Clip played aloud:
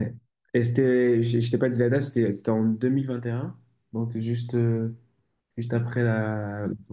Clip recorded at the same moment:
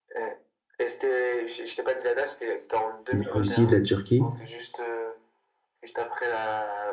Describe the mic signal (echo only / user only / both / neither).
both